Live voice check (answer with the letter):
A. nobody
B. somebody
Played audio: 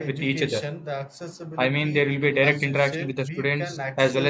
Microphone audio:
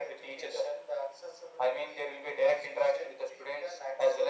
A